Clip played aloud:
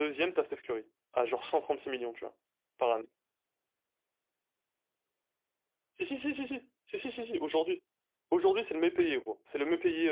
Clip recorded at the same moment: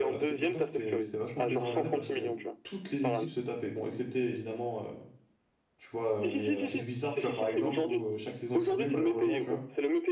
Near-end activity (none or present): present